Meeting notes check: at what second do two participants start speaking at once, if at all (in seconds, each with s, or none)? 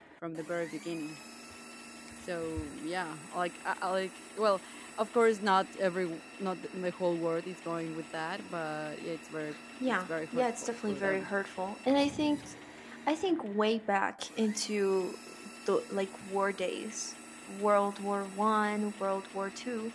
9.8 s